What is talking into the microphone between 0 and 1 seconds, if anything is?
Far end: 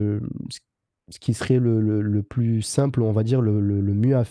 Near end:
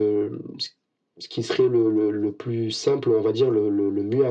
echo only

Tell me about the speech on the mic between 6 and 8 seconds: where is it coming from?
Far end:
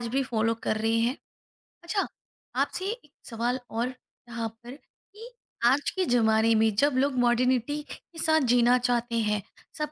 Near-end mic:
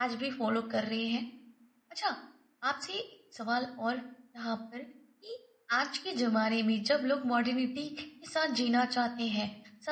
echo only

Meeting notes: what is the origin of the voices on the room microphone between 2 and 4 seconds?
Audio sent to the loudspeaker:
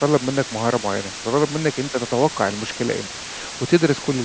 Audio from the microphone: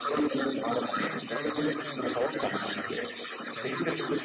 both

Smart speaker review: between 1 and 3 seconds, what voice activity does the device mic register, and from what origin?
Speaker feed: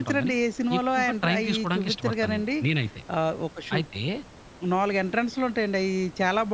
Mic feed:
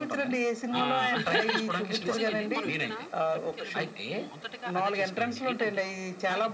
both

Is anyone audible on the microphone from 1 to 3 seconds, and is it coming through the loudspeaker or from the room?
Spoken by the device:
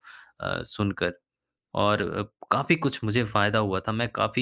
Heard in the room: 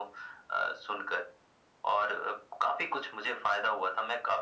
echo only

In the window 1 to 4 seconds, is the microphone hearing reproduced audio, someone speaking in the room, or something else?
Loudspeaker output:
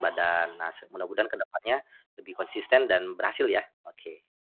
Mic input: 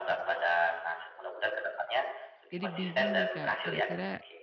both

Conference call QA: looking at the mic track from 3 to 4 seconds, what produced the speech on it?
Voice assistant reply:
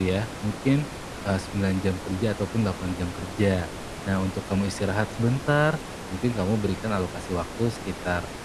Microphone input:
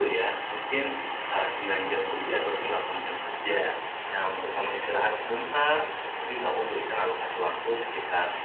echo only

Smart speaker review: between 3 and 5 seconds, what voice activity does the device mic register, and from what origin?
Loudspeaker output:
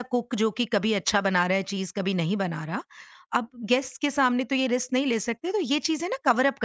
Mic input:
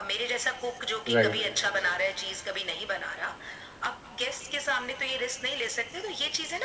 echo only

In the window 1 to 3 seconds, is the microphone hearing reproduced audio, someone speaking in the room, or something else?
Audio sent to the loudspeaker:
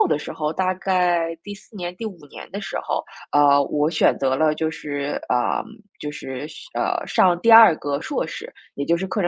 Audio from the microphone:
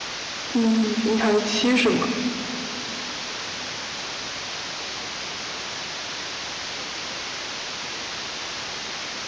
user only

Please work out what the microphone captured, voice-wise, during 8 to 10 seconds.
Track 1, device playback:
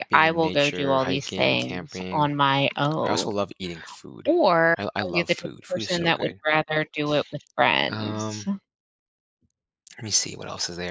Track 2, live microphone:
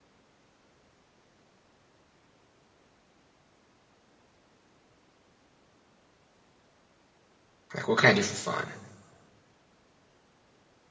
user only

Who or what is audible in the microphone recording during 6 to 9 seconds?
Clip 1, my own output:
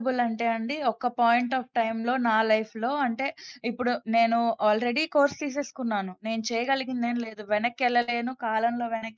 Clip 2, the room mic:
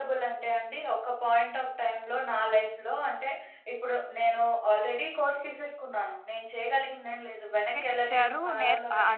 both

